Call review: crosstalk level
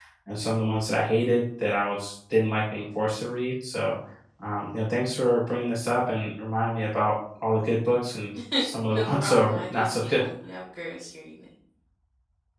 present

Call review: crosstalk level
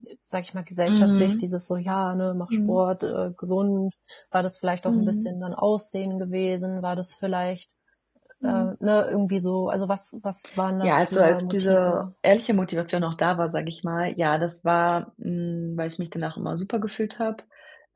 present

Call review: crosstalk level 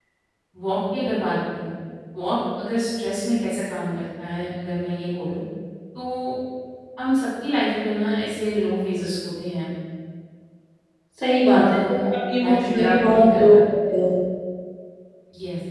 present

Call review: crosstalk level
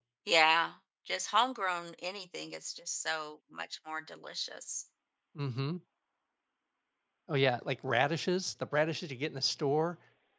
none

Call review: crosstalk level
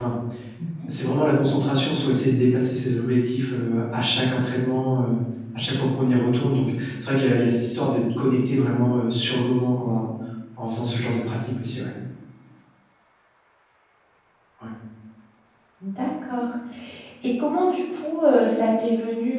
none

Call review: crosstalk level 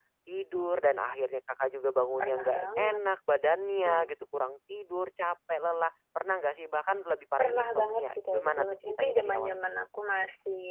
present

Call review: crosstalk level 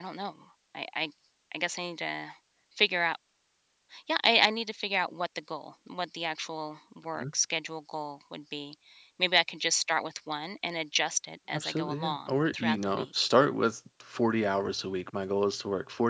present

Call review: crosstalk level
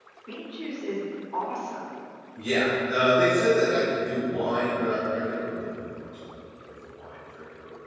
none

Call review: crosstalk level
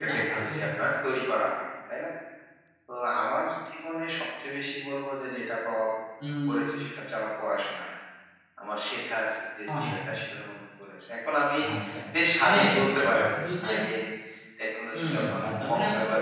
present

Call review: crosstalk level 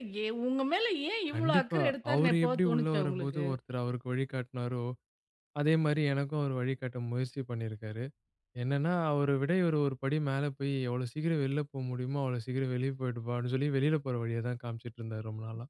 present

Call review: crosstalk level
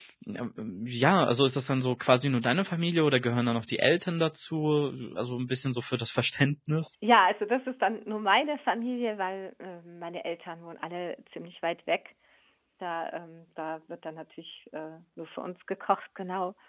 none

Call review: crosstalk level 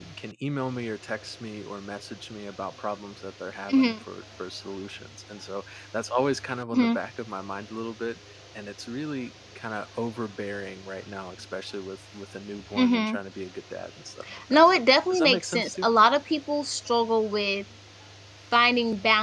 present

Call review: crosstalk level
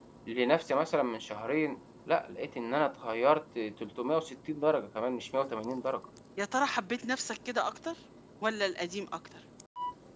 none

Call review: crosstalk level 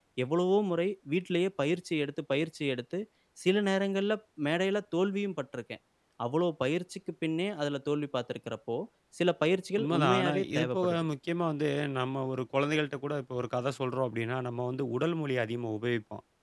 present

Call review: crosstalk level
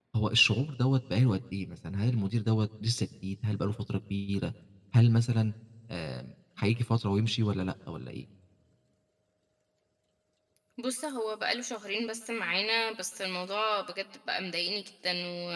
none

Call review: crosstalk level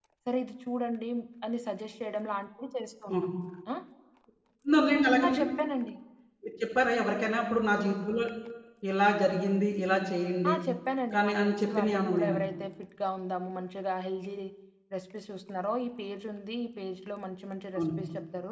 present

